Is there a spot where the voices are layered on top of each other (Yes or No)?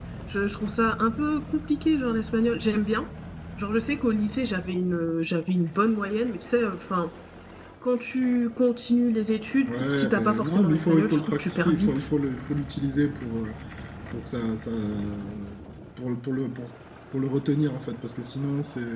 Yes